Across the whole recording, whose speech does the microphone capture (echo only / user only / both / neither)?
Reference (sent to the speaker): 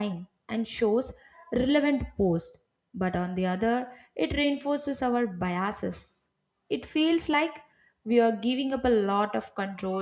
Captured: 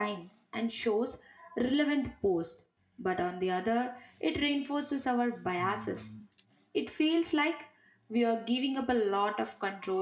both